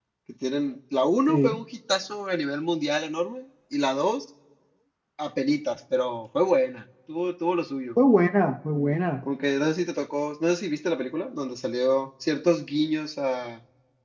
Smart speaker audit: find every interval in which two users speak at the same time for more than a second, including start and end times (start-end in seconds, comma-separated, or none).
none